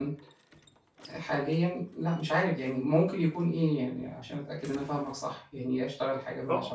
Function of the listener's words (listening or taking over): taking over